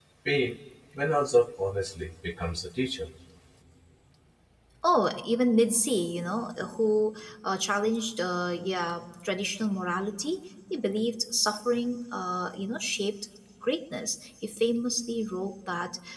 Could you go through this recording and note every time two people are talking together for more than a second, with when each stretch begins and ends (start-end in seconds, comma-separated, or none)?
none